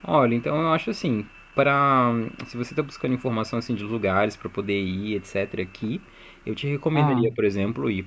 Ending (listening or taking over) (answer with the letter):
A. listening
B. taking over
A